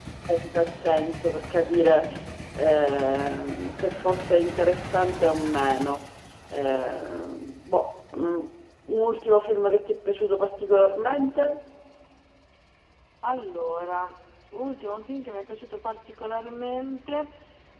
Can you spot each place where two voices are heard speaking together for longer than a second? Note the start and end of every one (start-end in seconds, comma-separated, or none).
none